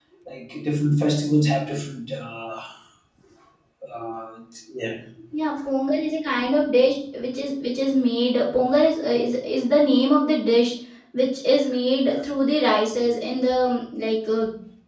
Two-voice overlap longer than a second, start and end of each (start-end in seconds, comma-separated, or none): none